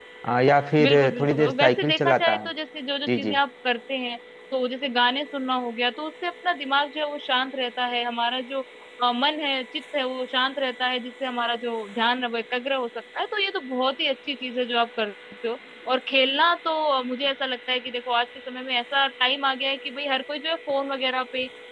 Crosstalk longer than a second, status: present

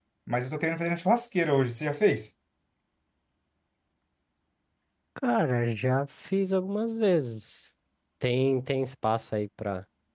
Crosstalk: none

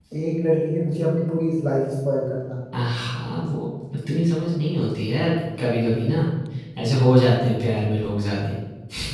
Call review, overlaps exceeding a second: none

